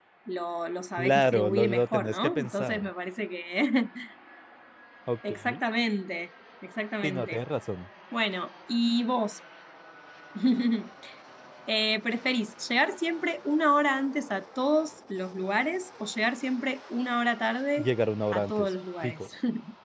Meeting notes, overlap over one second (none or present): present